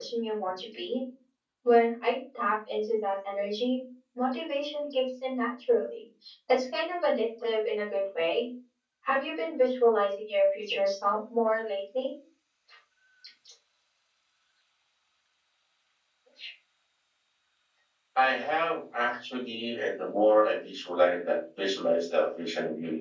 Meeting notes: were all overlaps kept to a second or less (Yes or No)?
Yes